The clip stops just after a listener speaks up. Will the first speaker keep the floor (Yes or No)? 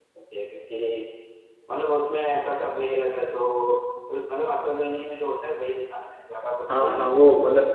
No